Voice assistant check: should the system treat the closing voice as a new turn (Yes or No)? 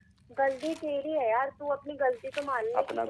No